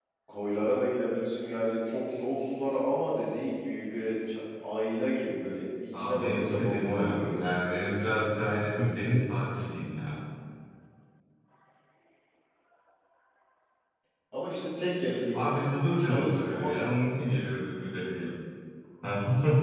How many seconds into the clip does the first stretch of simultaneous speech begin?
5.9 s

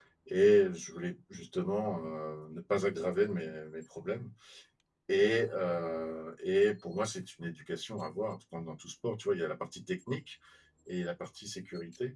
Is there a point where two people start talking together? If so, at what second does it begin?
none

